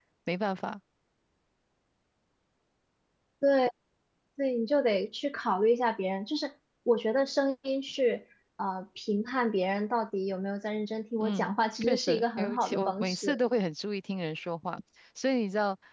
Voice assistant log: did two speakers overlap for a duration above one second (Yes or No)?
Yes